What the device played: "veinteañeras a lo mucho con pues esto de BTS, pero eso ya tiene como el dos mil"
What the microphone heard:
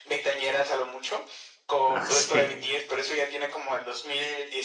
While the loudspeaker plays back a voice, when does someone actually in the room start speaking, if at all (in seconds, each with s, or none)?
1.9 s